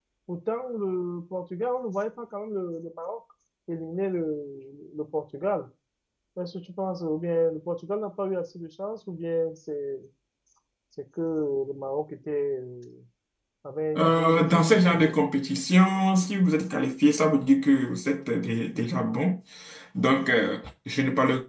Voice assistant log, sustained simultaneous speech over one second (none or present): present